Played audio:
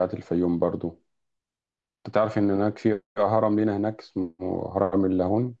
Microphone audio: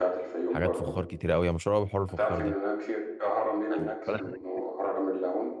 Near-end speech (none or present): present